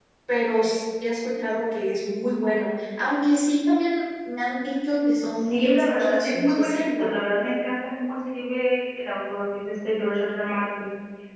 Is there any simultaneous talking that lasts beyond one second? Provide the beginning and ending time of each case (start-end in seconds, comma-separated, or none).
5.4-7.1